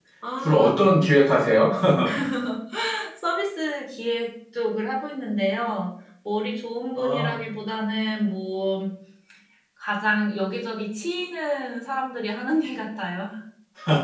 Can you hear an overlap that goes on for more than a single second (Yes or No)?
No